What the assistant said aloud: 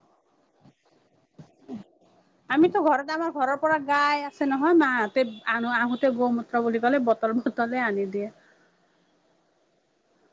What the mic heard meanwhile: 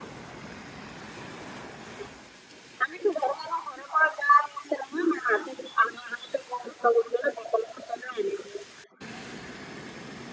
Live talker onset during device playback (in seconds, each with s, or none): none